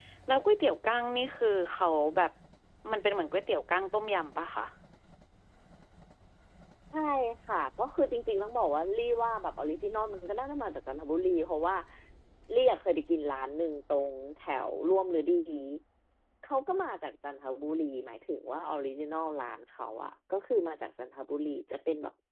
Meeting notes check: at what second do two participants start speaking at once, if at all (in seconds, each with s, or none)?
none